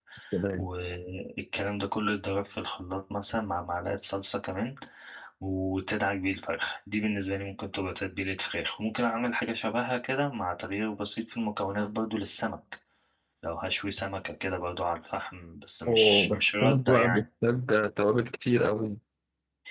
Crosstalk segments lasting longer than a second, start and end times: 15.9-17.2

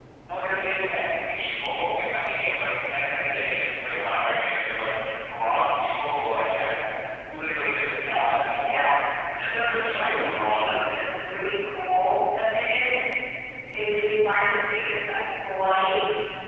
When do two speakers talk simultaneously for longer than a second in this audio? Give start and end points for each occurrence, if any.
9.4-10.8

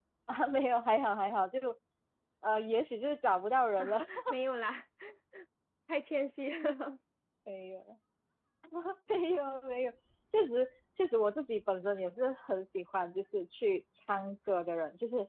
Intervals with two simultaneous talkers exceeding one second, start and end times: none

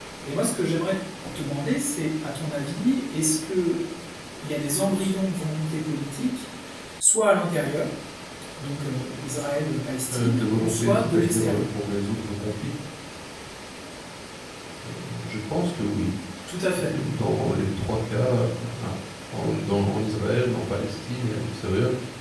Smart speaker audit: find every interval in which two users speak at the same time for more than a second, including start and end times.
10.1-11.7

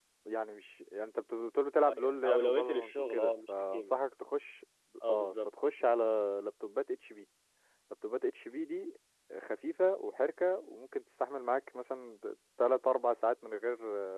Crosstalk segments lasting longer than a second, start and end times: 1.8-4.0

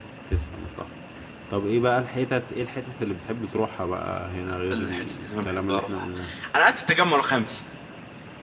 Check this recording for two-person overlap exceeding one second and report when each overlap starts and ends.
4.7-6.1

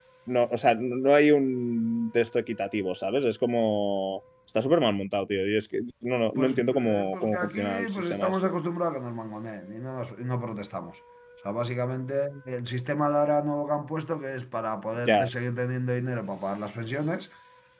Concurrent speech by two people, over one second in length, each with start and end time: 6.4-8.4

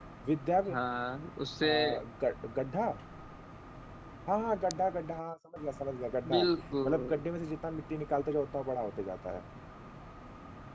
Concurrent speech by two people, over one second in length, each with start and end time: none

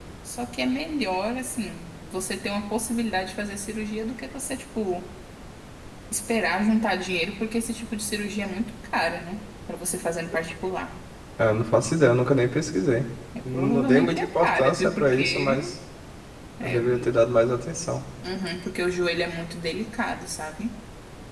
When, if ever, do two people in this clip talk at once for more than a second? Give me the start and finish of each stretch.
13.4-15.7

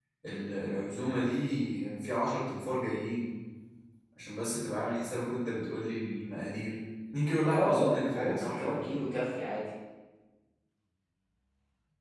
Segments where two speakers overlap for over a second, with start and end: 7.5-9.1

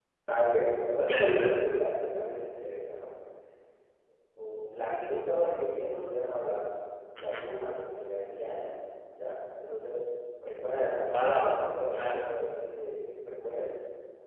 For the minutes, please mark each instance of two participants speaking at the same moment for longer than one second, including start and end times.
11.1-12.3

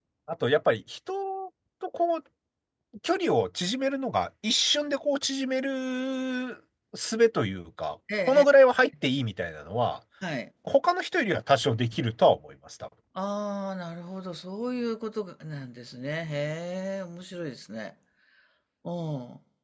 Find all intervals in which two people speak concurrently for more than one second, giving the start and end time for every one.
none

